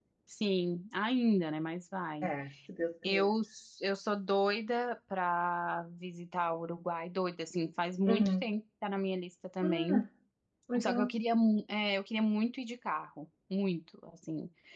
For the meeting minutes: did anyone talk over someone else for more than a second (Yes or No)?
No